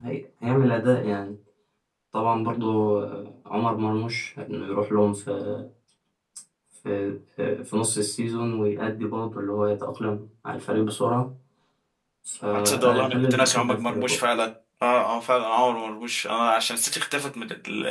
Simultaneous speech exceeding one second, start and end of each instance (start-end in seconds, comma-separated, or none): 12.5-14.0